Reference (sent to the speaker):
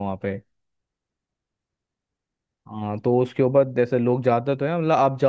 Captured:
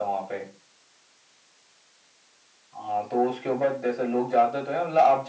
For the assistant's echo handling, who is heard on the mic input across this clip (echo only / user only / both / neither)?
echo only